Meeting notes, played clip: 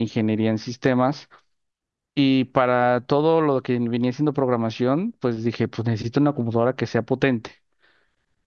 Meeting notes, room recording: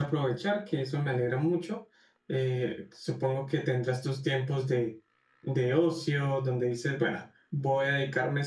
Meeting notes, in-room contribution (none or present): present